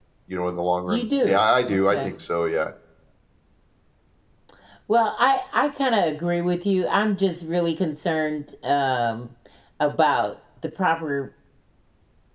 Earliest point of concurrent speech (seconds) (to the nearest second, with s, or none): 1 s